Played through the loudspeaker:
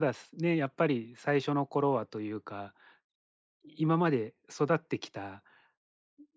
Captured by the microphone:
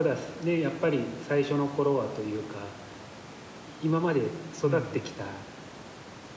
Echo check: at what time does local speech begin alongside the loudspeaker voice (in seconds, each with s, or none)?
4.6 s